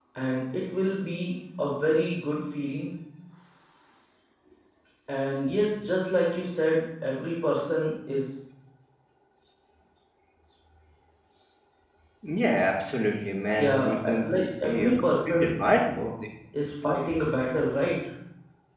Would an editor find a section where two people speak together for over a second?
Yes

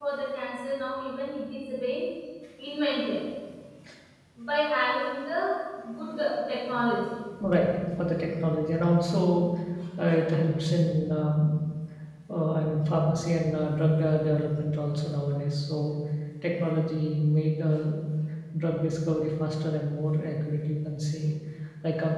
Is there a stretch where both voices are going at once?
No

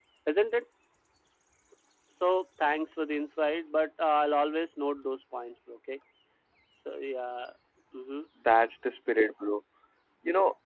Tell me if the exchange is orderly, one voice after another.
Yes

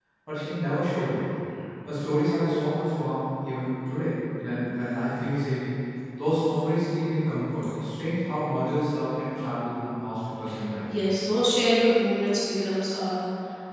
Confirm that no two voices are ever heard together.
Yes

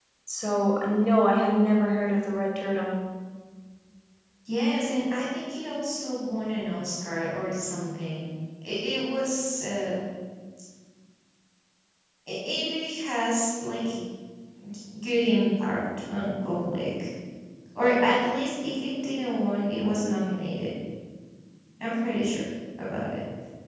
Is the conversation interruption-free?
Yes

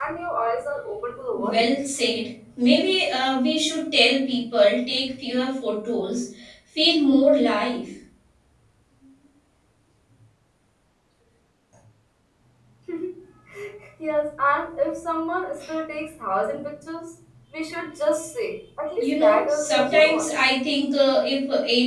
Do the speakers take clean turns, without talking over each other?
No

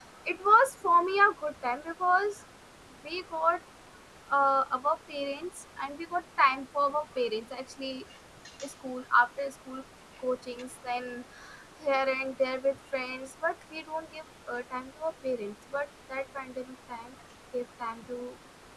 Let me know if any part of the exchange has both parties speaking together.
No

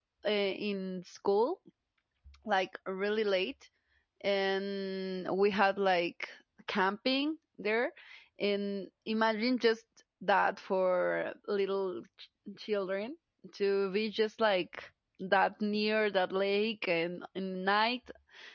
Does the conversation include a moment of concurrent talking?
No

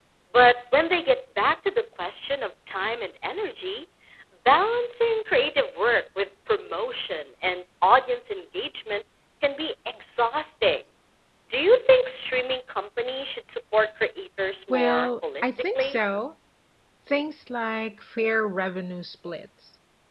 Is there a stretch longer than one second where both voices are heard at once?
Yes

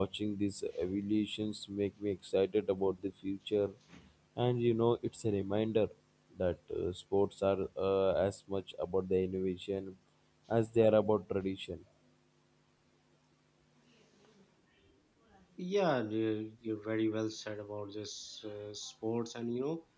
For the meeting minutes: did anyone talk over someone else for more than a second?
No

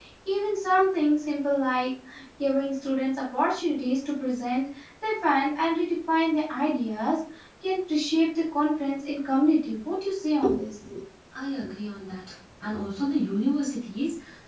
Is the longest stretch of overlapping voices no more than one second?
Yes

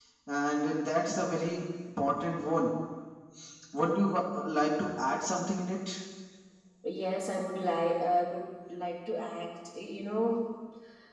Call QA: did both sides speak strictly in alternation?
Yes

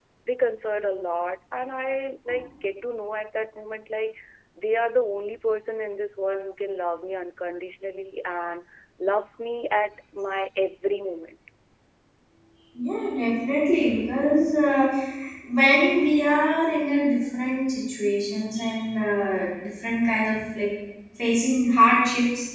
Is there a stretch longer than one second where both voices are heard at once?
No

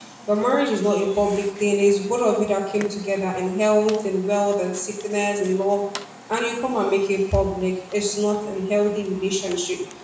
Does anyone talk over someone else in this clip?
No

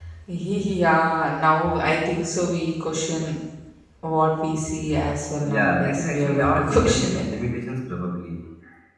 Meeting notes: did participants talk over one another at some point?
Yes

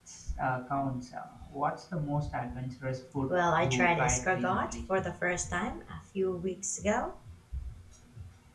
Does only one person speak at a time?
No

